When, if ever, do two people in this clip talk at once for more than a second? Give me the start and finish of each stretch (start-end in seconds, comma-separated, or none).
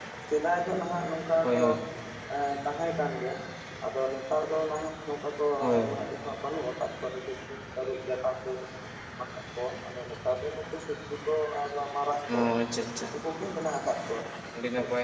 none